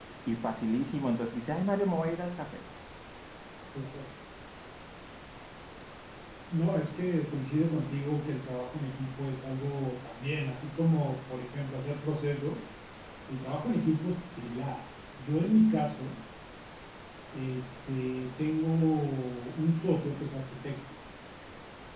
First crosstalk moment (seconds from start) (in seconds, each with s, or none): none